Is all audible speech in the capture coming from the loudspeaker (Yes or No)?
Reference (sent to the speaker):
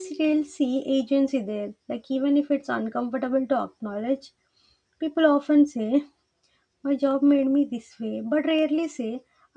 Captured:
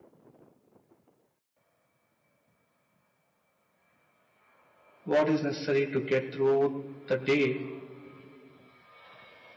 No